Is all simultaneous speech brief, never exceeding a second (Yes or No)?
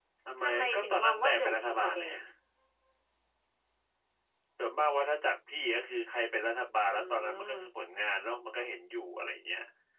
No